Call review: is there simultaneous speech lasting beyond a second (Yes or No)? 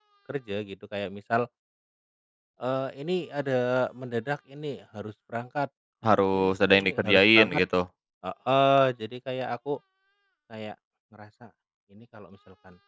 Yes